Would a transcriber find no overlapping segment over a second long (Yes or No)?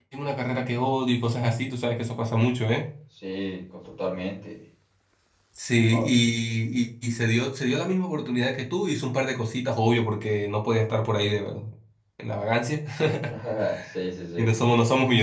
Yes